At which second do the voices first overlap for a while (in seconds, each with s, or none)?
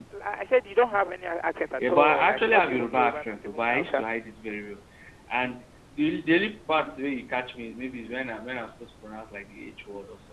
1.8 s